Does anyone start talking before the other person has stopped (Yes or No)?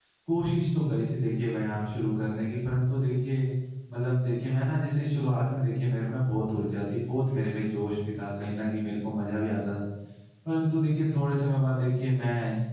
No